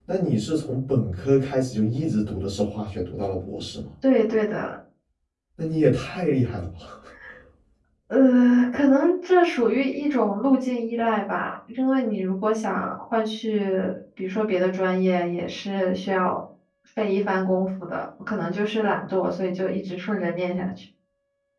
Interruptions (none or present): none